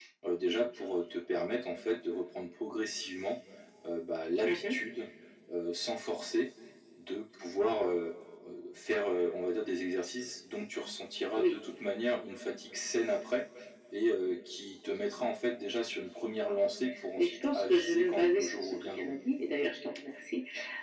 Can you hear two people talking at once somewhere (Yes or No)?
Yes